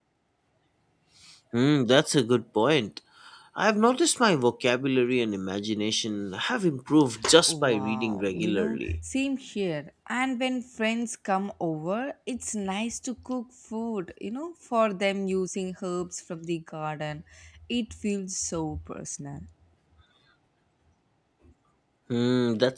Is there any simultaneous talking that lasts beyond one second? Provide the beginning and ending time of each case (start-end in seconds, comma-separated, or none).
7.5-9.0